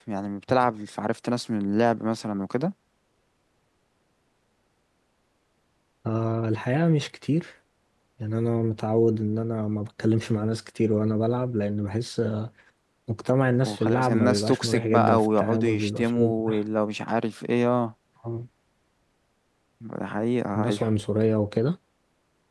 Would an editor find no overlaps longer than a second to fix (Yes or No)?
No